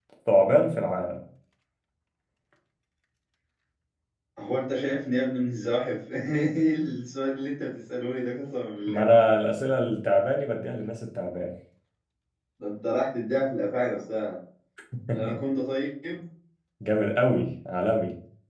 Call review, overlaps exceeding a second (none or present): none